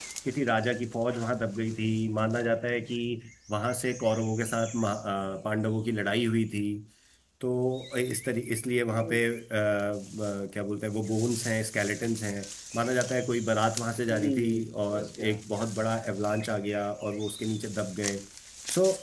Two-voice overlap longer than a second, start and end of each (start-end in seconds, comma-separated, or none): 14.1-15.4